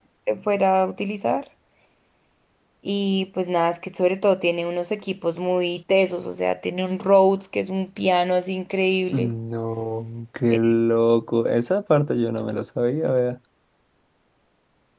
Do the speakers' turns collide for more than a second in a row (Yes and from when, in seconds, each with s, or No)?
No